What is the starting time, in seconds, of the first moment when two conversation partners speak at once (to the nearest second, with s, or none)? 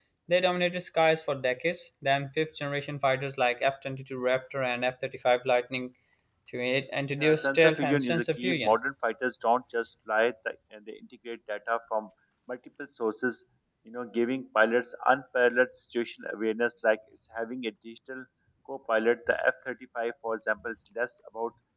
7 s